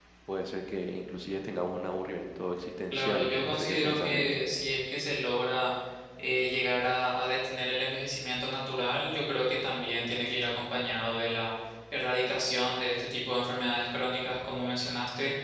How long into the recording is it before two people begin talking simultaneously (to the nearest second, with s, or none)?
3 s